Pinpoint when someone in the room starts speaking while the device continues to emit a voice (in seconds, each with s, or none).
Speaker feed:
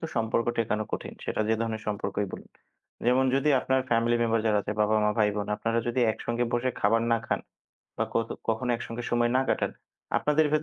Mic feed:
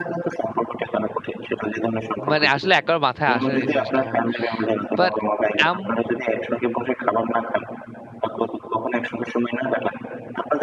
2.3 s